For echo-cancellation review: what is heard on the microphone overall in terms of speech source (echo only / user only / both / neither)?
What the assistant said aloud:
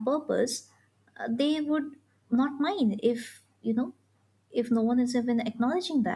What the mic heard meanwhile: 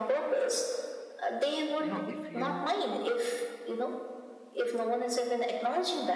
both